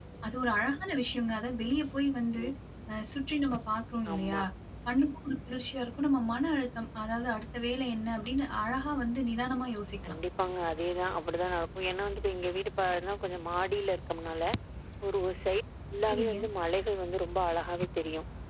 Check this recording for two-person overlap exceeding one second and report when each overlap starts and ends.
none

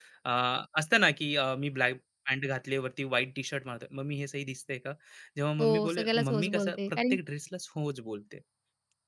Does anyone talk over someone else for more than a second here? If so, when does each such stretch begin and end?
5.6-7.2

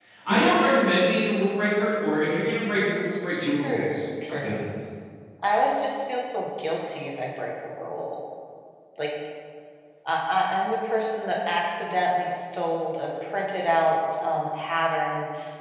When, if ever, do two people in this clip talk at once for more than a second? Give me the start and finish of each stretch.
3.4-4.7

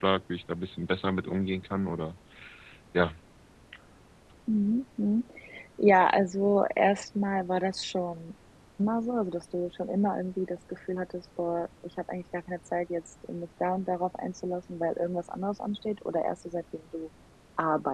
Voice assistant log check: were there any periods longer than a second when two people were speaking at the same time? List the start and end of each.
none

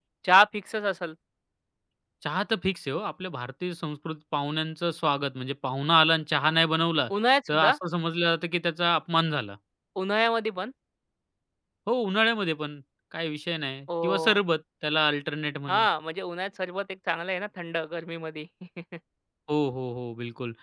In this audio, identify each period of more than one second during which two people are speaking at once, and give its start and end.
none

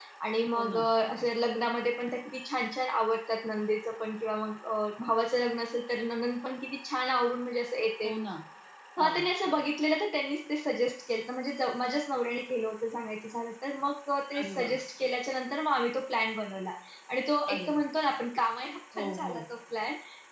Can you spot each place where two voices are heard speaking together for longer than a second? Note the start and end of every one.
none

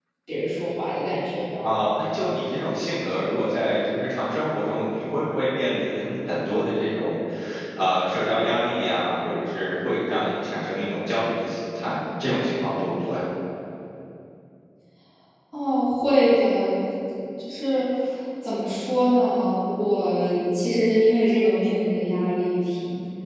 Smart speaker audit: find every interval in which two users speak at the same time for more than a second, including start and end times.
none

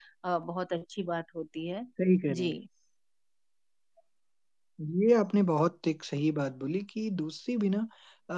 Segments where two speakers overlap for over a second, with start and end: none

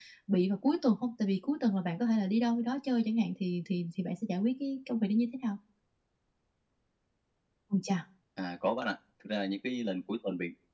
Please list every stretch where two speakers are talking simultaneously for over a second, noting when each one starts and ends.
none

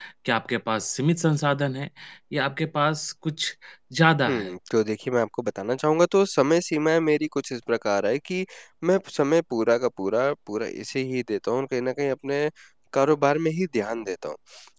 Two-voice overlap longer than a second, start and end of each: none

